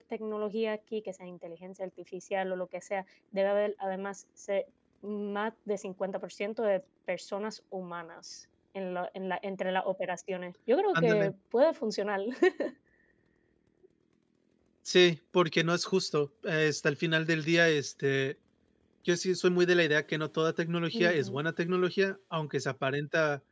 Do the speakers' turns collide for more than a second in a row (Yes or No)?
No